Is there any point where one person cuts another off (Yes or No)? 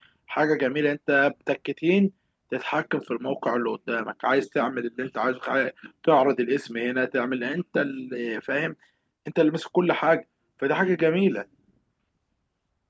No